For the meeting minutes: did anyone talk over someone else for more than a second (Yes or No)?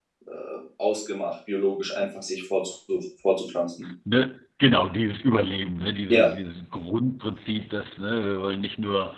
No